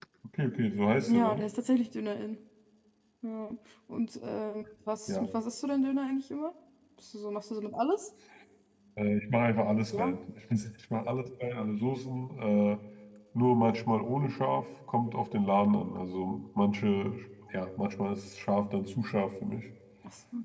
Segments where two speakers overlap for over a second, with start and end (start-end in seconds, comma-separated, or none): none